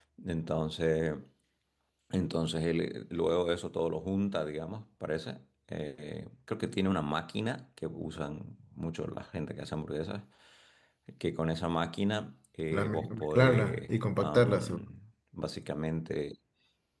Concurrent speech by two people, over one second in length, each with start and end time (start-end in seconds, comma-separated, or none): 12.7-14.8